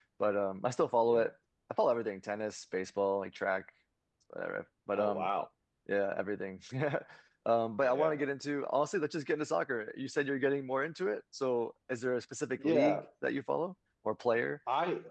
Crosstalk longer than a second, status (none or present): none